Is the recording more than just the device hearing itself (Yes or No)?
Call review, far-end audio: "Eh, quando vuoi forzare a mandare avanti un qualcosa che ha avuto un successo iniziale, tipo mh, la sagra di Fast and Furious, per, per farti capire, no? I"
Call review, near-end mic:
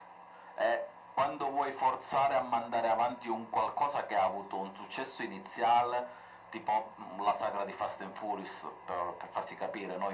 No